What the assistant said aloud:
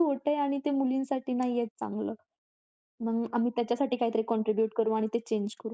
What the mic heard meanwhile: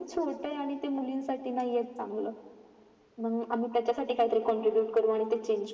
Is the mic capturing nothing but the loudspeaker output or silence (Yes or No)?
Yes